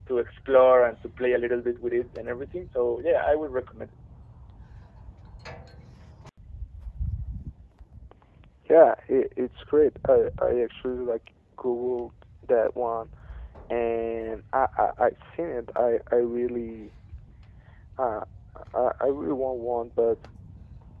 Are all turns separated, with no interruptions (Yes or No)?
Yes